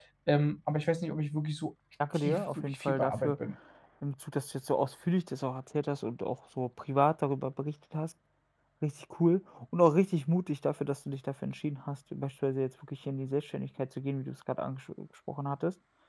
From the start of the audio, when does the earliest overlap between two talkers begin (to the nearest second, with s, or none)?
2 s